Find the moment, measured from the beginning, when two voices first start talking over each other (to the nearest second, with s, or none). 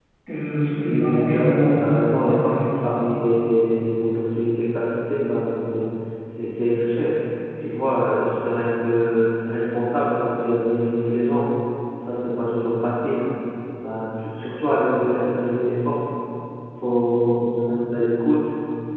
1 s